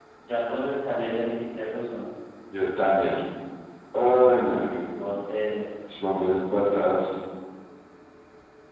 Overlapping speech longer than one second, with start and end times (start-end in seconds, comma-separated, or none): none